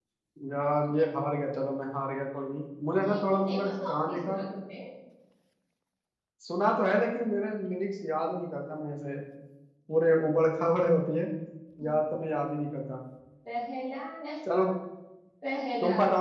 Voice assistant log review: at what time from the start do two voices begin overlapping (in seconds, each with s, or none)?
3.0 s